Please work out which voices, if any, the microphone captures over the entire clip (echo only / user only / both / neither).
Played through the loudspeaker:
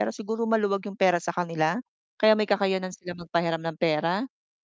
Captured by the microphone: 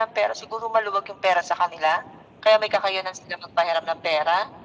echo only